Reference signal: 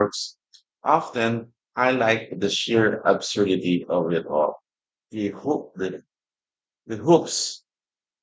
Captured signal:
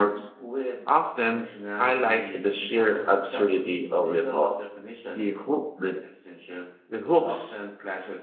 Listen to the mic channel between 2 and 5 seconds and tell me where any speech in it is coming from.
both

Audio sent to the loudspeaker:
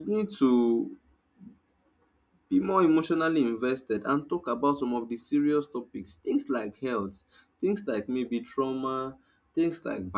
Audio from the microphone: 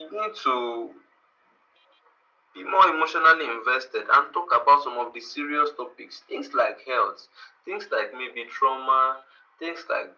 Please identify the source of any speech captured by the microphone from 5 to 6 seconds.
echo only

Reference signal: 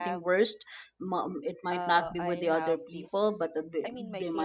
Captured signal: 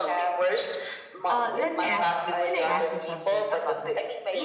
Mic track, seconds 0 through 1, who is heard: echo only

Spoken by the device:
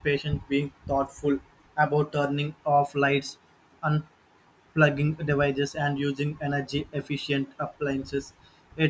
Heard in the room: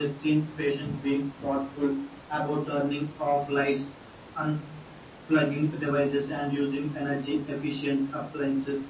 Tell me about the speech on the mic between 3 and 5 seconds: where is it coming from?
echo only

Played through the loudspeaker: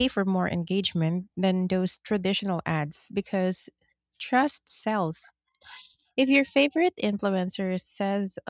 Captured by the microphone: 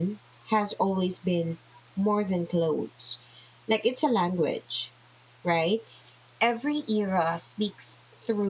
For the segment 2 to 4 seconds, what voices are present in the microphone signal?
user only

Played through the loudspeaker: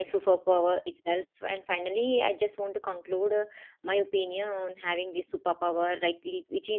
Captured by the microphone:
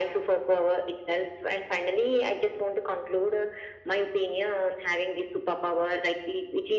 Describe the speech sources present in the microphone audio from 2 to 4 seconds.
echo only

